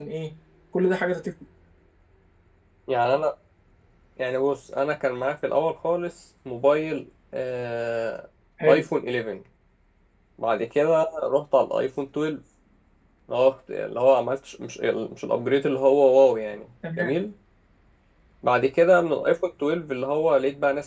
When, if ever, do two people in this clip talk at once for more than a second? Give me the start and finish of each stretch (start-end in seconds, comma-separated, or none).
none